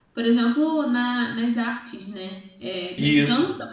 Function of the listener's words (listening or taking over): listening